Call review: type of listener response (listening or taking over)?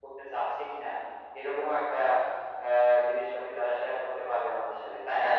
taking over